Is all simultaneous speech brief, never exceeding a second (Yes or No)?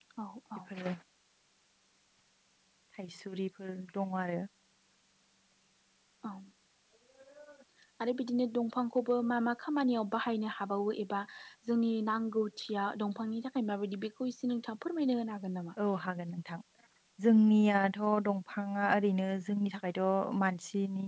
Yes